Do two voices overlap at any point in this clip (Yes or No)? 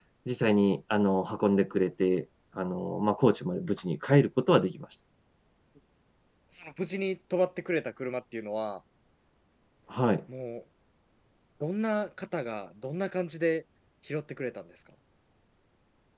No